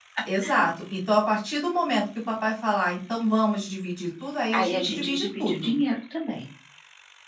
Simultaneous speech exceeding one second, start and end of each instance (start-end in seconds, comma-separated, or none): 4.5-5.7